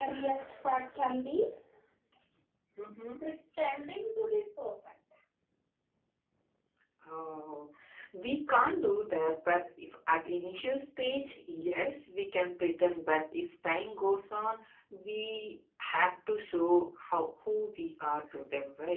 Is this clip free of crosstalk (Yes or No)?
Yes